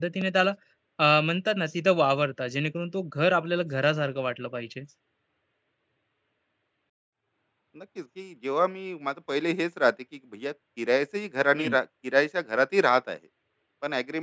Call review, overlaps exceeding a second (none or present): none